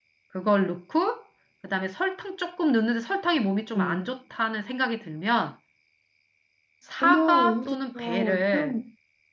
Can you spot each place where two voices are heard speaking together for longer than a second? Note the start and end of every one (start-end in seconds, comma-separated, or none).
7.0-8.7